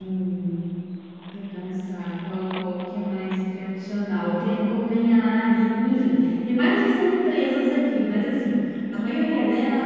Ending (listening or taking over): listening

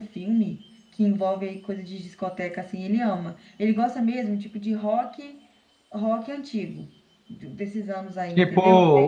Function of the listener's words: taking over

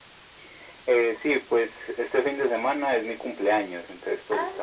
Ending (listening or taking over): listening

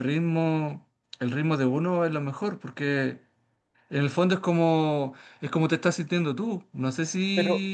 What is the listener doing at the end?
taking over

